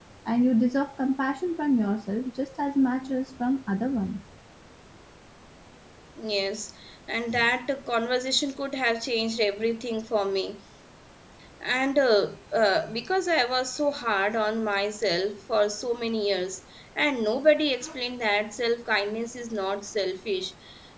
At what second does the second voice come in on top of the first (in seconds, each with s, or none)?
none